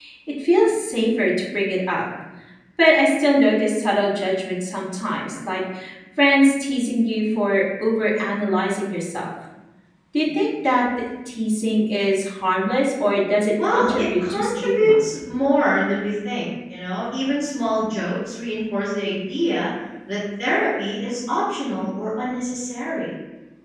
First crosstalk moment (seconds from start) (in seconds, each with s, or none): 13.6 s